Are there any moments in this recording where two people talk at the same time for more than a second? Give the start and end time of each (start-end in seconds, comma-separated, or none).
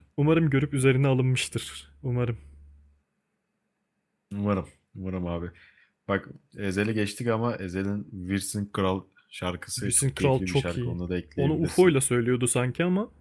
9.8-11.0